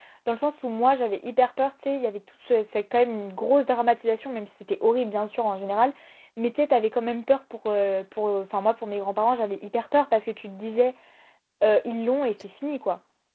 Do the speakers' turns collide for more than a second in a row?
No

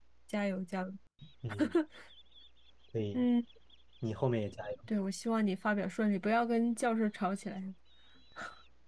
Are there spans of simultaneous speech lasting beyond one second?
No

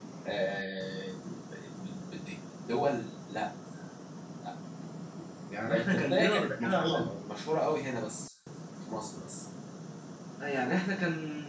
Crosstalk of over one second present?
Yes, from 5.7 s

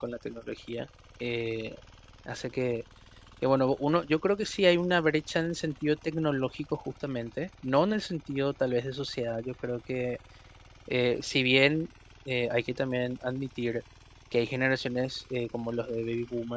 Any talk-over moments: No

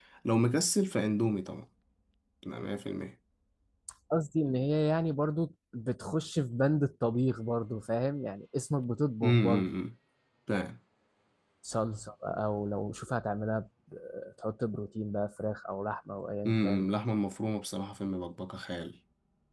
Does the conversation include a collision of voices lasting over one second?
No

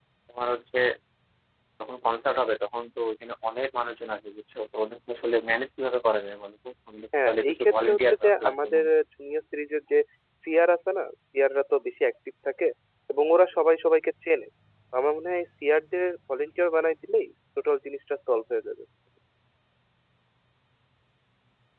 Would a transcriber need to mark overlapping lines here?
Yes, from 7.1 s

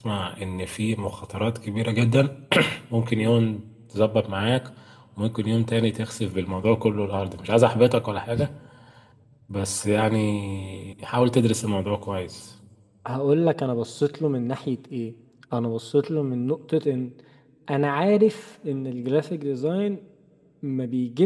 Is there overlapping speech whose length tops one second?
No

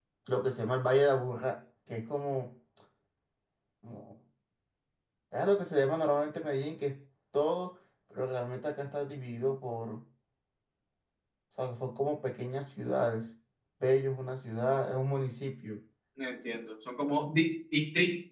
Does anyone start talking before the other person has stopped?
No

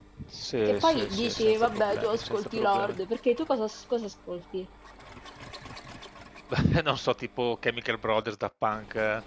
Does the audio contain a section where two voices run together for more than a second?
Yes, from 0.6 s

